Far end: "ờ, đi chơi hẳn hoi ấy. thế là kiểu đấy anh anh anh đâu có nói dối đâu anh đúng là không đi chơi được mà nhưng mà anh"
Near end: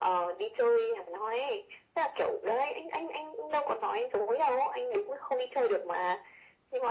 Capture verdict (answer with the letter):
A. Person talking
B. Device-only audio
B